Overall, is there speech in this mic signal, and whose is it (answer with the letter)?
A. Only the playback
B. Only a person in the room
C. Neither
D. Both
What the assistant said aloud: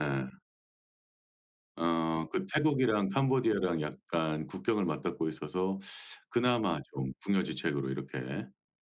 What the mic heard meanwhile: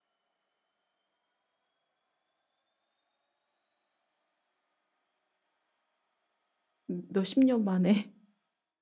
B